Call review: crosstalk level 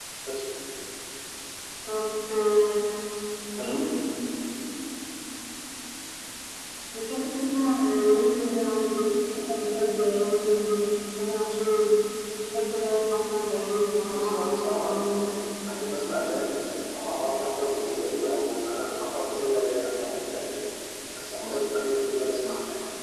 present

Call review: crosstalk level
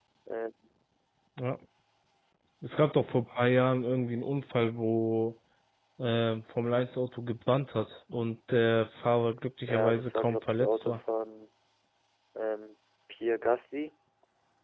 present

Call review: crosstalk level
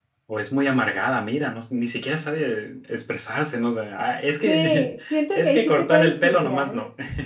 present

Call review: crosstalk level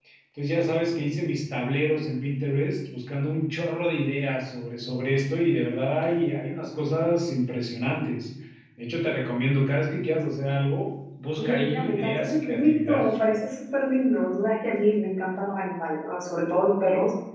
present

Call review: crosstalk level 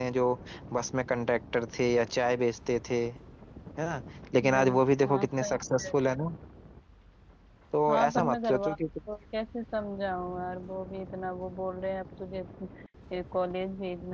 present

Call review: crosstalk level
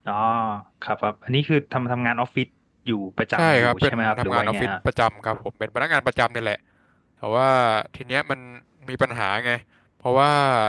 present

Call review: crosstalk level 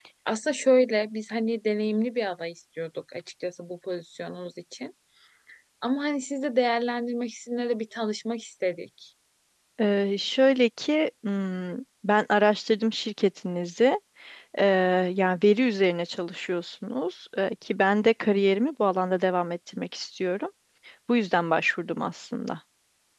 none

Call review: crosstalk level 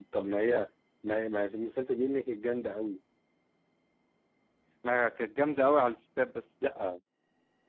none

